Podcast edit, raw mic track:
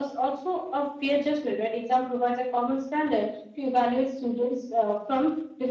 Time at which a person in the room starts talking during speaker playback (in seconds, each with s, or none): none